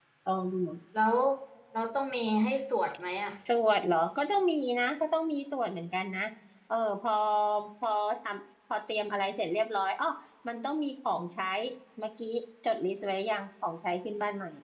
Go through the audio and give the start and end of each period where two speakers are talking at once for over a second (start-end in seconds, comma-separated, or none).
none